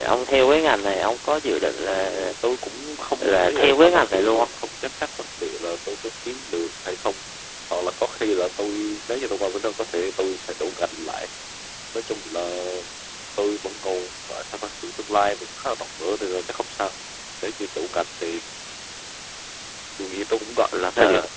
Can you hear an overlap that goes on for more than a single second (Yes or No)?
Yes